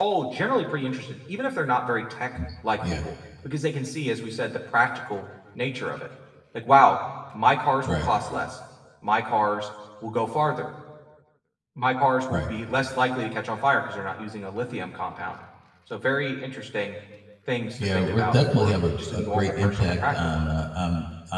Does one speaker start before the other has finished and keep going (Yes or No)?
Yes